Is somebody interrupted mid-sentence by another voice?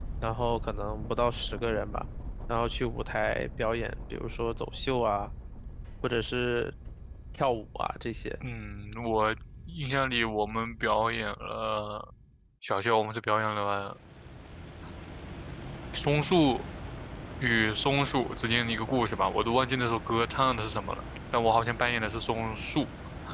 No

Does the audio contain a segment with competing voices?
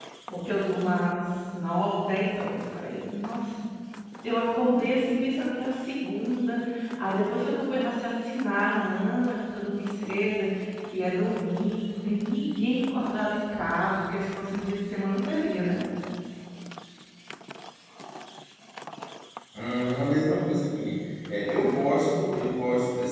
No

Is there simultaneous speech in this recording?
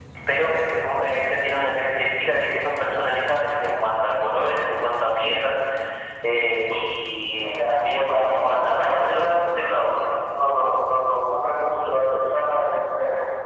Yes, from 7.5 s

